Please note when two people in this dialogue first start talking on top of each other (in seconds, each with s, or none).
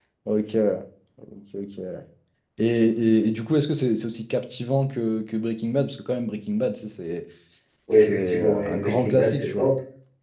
7.9 s